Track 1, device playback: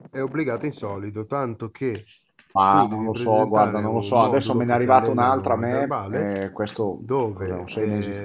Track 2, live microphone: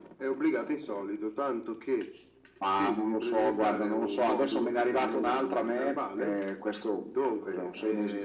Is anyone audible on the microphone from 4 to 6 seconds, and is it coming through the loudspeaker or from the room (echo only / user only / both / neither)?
echo only